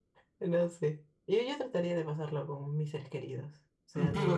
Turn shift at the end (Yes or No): Yes